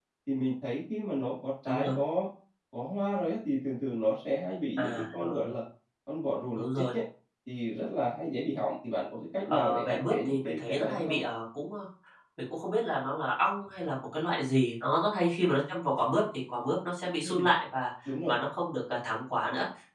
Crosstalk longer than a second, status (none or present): present